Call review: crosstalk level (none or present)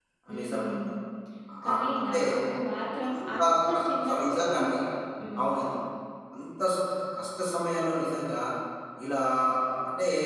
present